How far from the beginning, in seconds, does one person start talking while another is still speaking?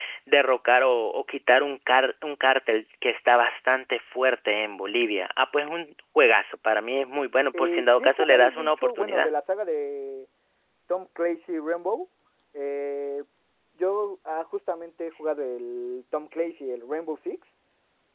7.5 s

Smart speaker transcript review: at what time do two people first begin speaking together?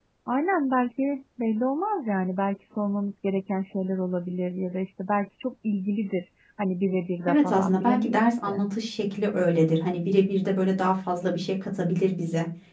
7.3 s

